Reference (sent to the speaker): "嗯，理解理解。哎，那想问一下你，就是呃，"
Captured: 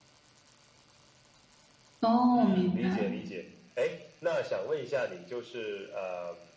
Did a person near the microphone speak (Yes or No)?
Yes